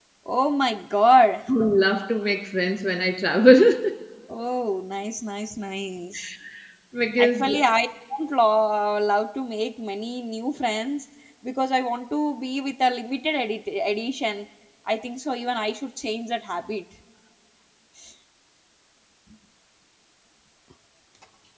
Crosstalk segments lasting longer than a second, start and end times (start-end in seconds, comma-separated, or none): none